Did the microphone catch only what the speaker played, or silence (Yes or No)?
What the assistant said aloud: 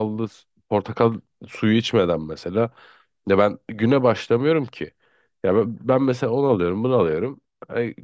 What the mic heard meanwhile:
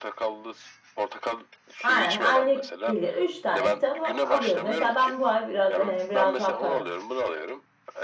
No